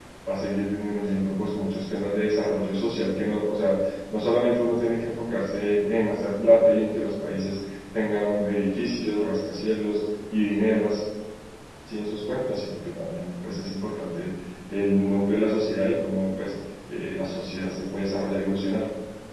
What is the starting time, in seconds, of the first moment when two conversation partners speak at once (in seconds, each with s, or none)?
none